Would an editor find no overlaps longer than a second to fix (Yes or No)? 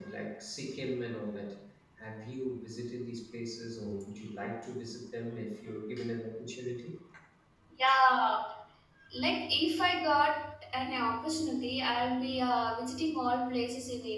Yes